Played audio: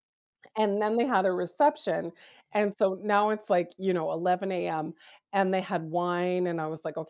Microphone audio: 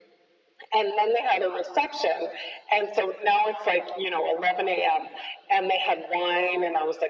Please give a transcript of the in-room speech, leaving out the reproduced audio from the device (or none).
none